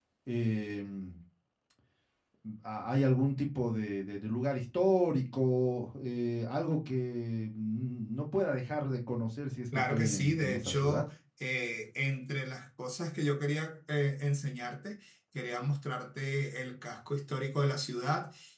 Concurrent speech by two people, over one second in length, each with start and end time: 9.7-11.0

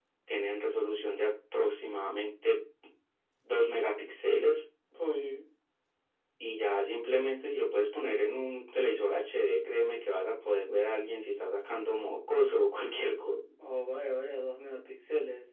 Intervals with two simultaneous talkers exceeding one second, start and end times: none

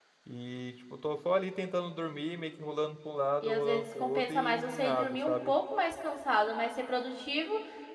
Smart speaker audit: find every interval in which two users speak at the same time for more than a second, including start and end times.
3.4-5.5

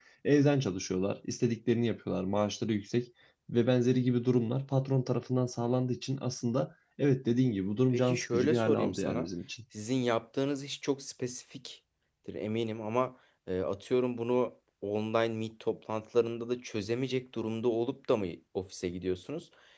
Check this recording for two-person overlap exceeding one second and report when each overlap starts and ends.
7.9-9.3

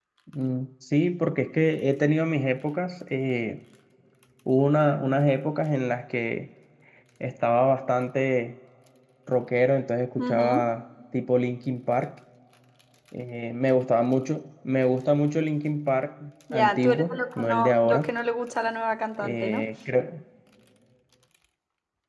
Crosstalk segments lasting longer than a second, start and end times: 16.5-18.1

